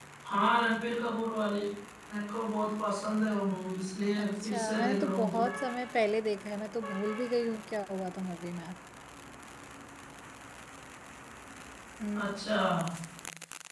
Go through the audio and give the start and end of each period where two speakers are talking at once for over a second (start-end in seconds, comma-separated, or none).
4.2-5.4